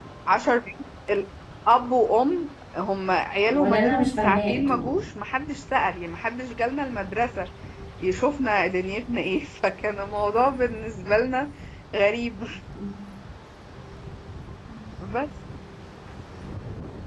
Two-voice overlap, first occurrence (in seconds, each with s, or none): 3.5 s